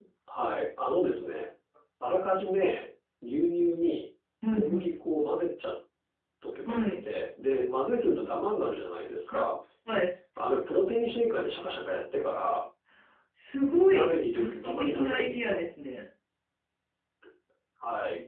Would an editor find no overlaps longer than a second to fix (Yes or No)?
No